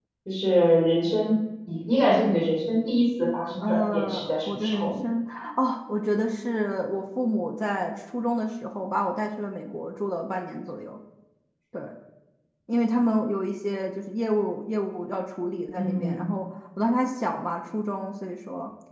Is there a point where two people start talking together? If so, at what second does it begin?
3.6 s

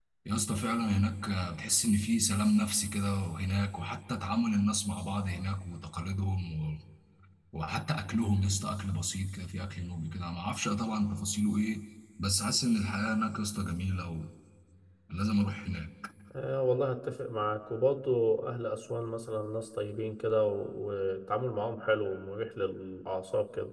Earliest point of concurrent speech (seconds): none

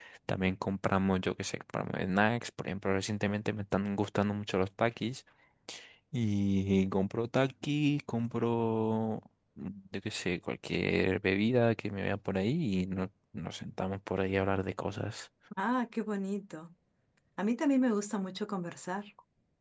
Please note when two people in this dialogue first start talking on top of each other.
none

